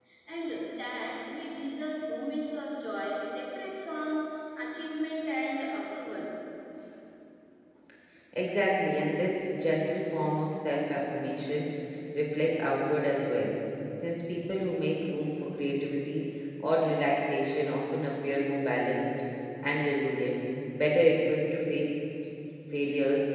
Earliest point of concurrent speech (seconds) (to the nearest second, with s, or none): none